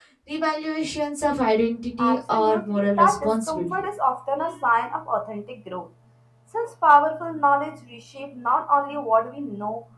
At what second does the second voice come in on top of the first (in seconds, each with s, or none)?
2.0 s